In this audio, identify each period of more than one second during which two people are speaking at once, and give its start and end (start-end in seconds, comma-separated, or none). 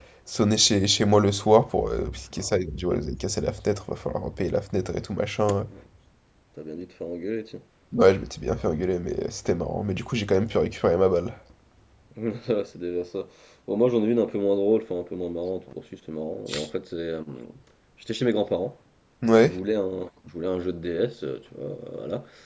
none